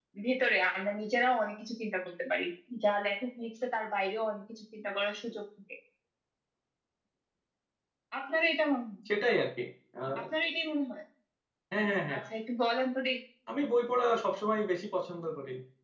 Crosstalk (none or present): none